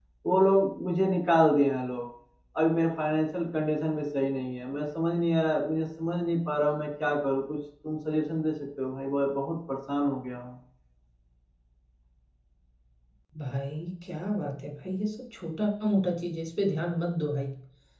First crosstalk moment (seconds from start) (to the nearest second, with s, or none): none